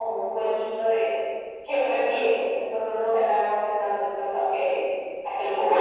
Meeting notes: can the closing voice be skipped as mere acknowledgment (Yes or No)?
No